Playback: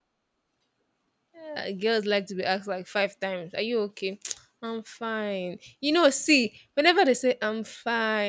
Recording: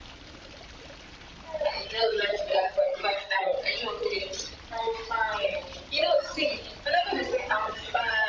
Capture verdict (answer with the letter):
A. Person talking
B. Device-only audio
B